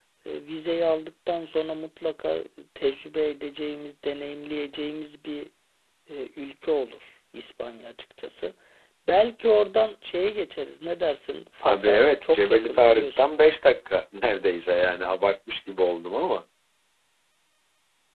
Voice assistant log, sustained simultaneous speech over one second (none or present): present